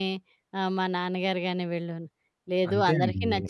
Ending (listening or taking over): listening